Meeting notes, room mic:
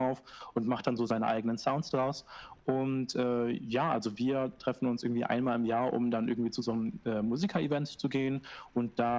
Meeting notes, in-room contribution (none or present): none